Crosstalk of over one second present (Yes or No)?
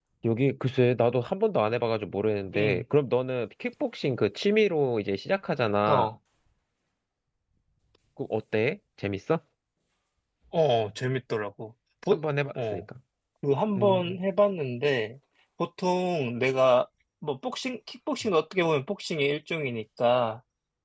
No